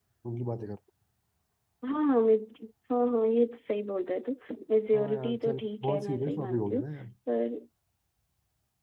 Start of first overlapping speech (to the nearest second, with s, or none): 5 s